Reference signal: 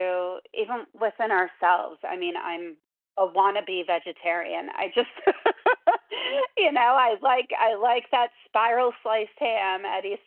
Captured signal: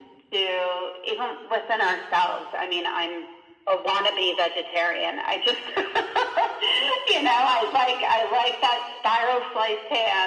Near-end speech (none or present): none